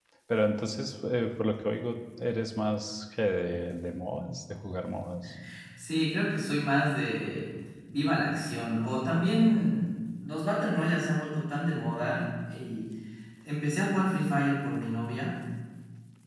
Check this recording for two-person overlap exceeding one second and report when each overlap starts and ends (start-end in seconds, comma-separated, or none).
none